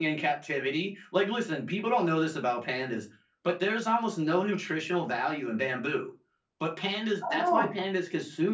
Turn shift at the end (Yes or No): No